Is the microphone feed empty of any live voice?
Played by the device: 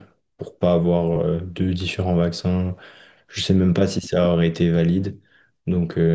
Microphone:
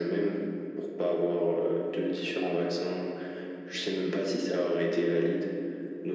Yes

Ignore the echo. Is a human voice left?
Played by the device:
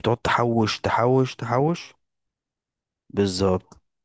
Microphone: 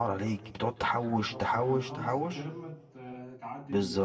Yes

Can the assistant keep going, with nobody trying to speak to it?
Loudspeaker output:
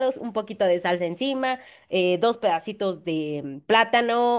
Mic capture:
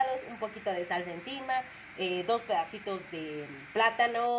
Yes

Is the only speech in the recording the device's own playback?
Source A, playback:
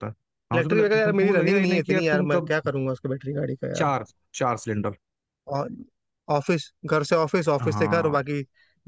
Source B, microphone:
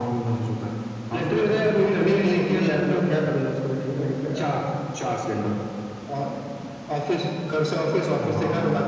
Yes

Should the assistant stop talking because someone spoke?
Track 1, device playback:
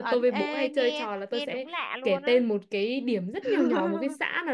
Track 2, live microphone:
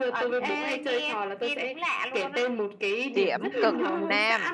Yes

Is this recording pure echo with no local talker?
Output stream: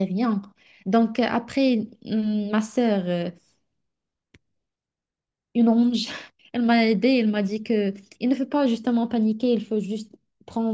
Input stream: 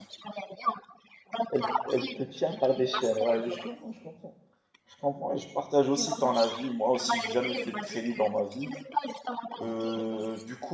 No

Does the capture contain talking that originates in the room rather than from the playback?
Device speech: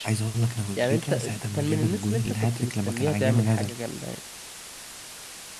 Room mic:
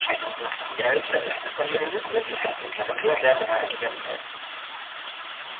No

